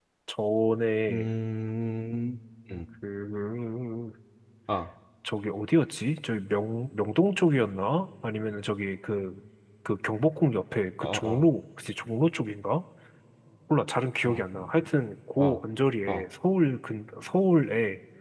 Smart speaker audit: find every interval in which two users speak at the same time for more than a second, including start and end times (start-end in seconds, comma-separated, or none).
none